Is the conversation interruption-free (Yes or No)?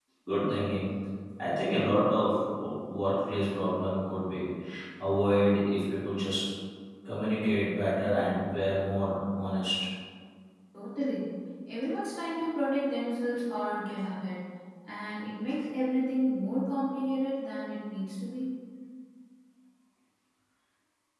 Yes